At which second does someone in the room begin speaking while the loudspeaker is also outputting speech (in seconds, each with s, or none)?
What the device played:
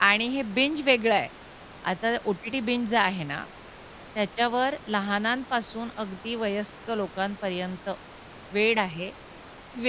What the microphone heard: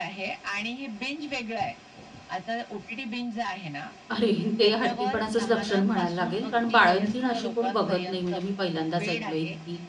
4.1 s